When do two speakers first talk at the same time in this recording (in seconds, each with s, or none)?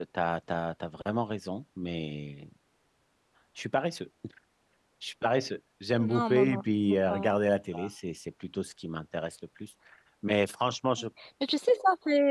6.0 s